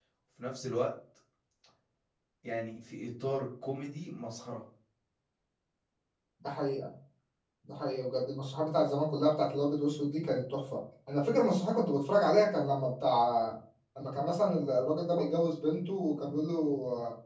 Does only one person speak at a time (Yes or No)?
Yes